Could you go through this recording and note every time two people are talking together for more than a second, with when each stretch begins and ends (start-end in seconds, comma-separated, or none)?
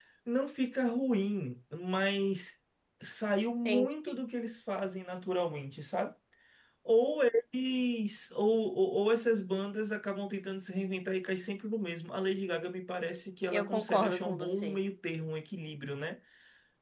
13.5-14.8